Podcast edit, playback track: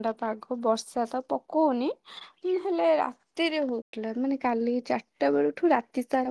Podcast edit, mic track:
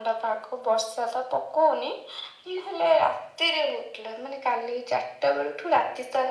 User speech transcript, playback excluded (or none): none